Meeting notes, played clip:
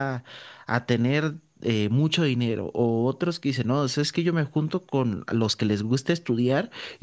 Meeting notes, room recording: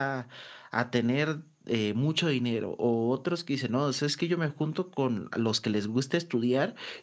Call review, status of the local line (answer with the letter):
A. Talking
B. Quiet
B